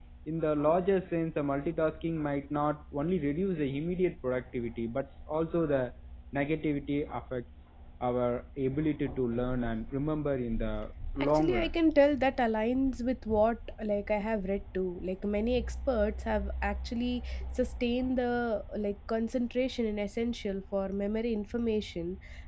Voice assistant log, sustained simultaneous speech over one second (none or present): none